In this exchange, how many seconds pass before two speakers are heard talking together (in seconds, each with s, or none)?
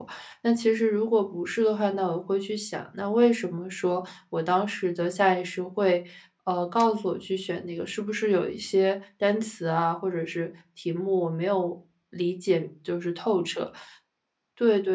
none